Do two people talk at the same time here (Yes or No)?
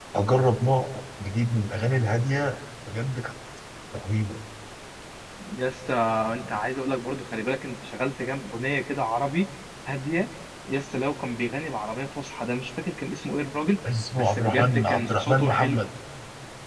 Yes